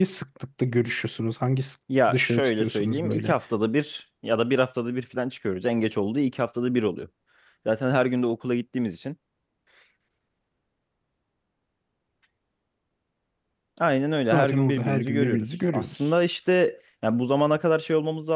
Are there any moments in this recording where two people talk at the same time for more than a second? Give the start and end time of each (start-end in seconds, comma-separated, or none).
2.1-3.4, 14.2-15.9